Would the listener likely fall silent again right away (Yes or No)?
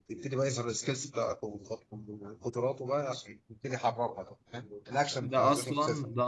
No